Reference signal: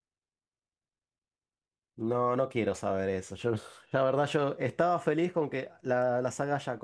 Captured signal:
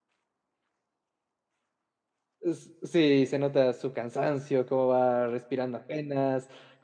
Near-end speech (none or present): present